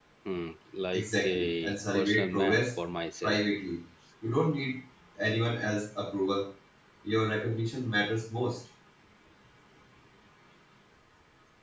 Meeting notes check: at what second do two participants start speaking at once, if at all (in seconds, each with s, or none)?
0.9 s